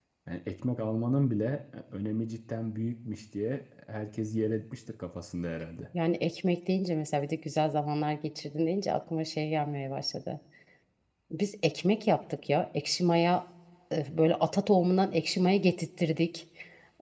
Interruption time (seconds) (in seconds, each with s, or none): none